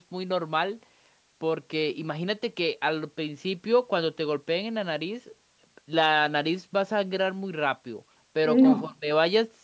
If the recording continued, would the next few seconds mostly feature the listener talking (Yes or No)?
No